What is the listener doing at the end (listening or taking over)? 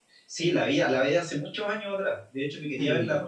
listening